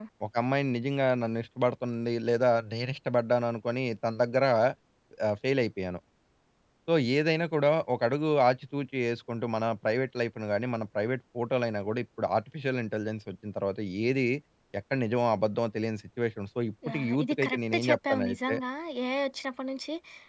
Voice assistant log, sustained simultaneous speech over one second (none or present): present